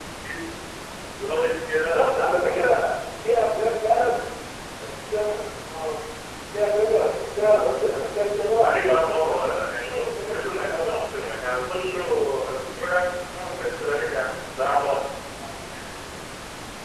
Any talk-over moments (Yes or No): Yes